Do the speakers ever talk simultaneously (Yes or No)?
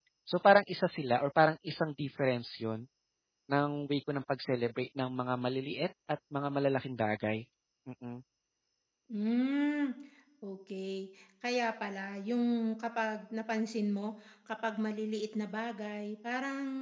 No